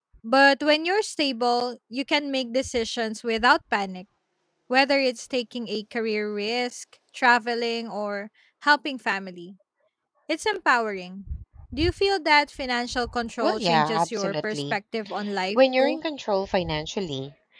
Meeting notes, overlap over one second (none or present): present